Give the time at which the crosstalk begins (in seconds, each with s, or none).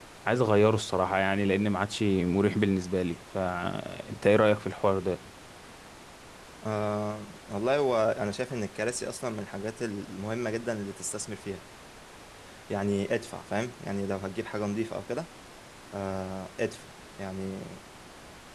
none